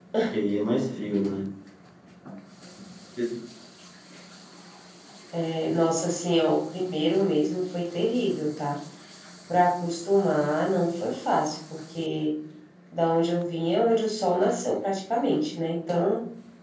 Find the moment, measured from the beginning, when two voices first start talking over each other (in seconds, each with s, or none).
none